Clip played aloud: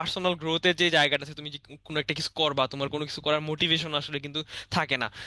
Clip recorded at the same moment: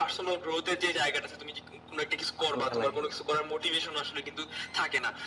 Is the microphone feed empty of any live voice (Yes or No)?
No